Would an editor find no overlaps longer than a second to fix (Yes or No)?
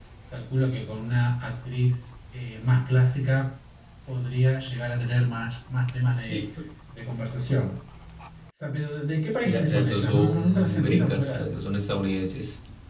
No